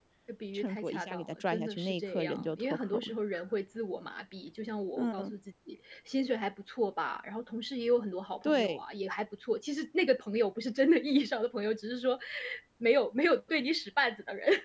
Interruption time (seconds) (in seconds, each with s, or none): 0.5 s